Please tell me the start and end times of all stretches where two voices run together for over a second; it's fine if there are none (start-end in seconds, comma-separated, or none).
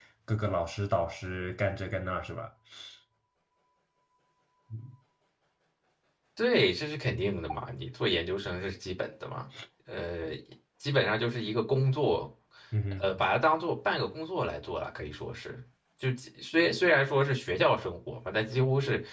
none